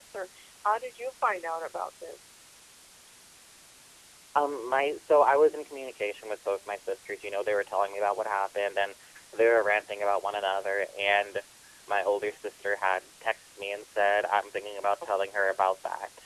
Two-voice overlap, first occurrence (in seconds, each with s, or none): none